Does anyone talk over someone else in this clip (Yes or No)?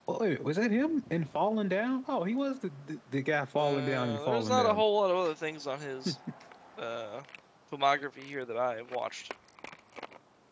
Yes